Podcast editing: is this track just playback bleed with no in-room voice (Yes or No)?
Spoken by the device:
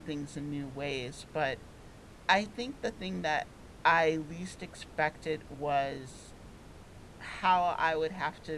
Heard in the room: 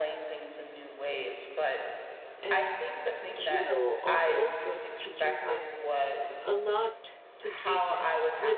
No